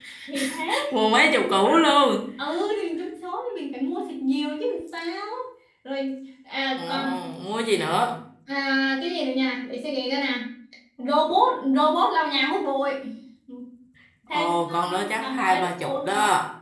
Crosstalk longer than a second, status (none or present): present